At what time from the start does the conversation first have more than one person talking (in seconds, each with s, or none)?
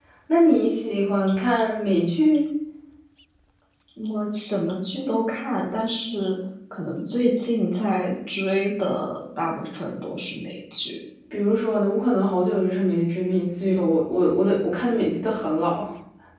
none